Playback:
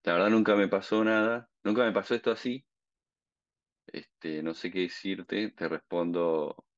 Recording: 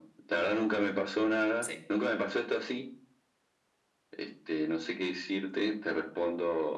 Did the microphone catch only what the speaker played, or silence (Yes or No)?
No